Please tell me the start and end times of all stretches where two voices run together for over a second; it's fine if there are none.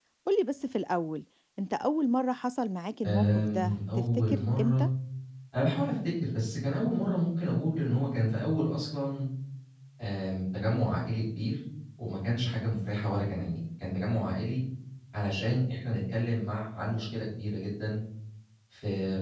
3.0-4.8

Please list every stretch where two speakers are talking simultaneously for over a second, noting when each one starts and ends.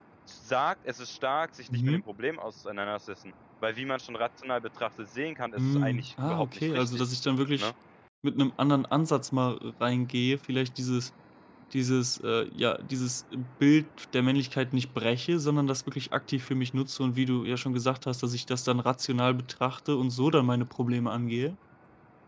5.6-7.0

